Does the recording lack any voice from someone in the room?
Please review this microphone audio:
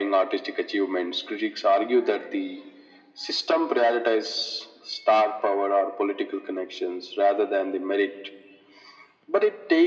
Yes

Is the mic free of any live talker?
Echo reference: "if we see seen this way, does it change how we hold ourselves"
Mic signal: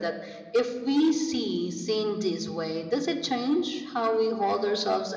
Yes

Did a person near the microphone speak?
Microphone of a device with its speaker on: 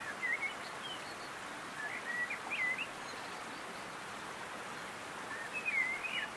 No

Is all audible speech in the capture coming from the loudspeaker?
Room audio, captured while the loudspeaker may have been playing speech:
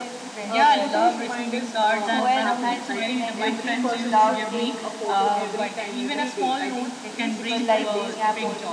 No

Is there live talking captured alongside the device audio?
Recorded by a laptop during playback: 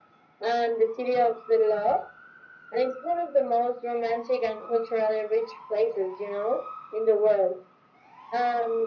No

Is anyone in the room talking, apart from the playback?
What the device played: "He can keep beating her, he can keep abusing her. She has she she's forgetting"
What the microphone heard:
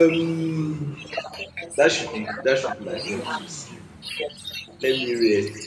Yes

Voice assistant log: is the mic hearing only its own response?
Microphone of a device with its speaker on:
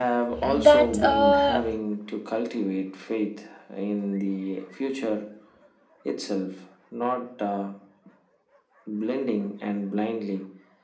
No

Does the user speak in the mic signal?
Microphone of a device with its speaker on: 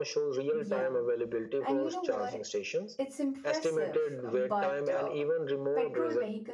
Yes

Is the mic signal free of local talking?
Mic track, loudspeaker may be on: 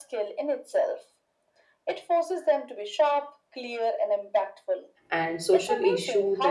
No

